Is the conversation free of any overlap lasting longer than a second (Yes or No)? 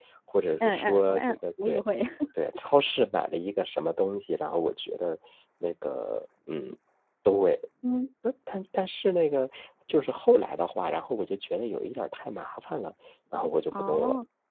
No